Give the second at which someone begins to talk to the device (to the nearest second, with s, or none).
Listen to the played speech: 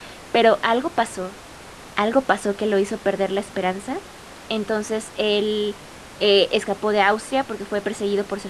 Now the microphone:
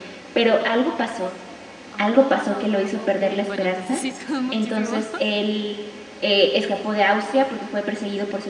2 s